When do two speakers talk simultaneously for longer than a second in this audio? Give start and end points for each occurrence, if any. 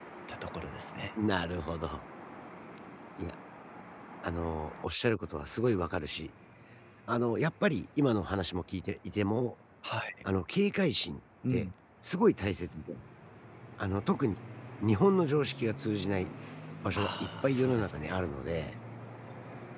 16.9-18.2

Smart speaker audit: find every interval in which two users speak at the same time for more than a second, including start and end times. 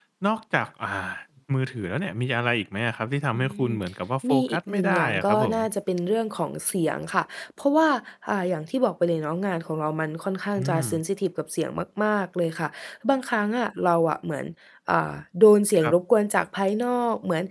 4.3-5.6

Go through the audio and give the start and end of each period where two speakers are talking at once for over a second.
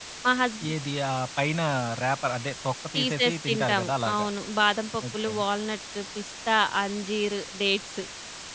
3.0-4.3

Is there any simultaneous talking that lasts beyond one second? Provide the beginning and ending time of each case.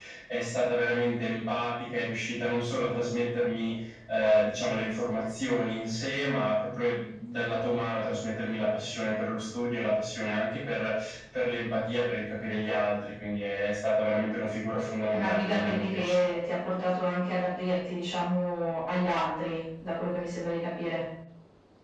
15.1-16.3

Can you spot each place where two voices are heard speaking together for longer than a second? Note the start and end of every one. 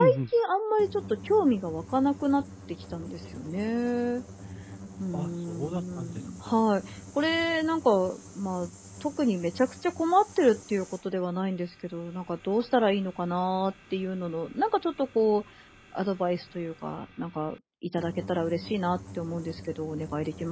5.1-6.6

